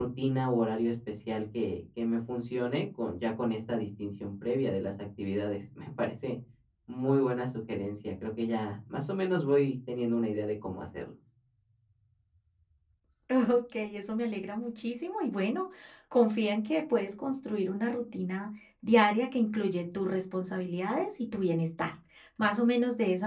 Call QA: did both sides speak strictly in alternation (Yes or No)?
Yes